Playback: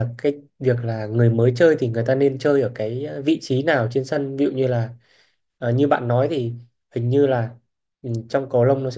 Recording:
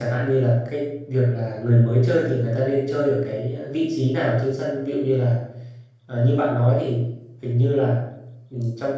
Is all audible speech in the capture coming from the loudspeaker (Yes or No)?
Yes